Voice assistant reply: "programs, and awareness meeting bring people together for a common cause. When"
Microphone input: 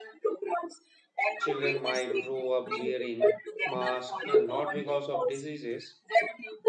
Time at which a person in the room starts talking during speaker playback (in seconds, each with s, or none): 1.4 s